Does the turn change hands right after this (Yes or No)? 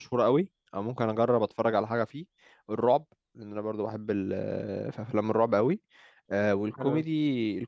No